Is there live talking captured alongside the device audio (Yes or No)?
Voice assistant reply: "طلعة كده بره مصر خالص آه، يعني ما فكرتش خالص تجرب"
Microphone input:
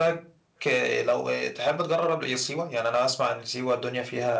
Yes